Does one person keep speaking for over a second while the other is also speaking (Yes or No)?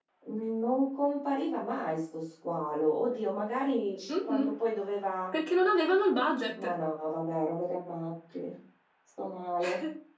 No